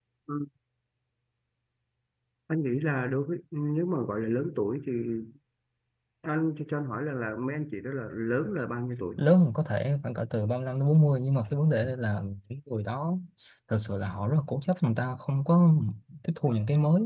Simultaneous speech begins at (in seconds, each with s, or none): none